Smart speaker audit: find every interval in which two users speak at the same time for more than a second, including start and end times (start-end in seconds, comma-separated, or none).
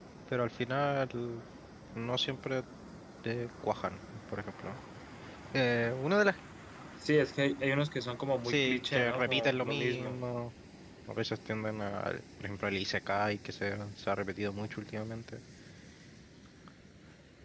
8.4-10.2